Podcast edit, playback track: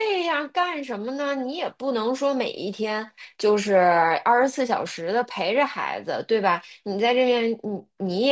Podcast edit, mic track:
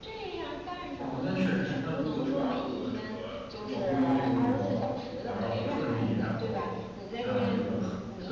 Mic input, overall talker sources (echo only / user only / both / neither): both